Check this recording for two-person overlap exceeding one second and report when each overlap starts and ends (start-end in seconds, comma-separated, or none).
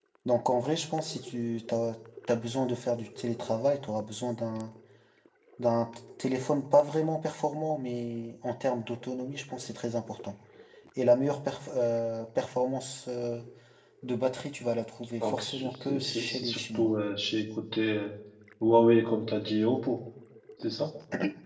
15.2-16.9